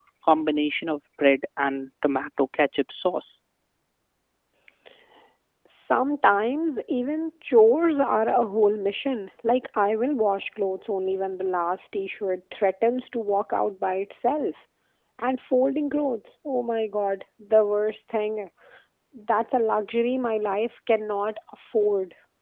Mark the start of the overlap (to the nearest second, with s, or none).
none